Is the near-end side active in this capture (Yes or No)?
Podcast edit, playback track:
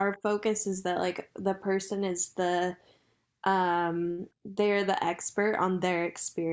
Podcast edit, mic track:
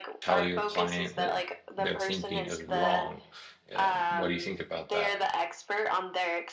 Yes